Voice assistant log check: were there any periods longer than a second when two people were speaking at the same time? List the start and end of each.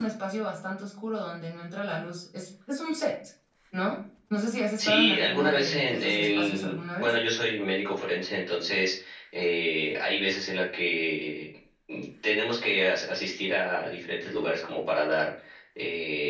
4.8-7.1

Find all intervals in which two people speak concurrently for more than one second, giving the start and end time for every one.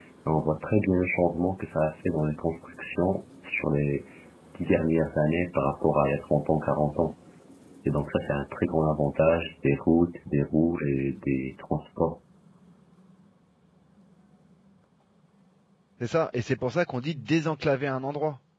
none

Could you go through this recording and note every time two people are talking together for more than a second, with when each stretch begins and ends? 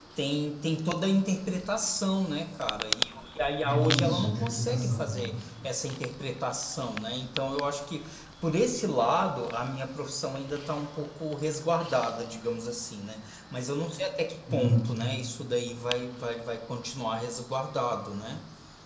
3.6-5.2

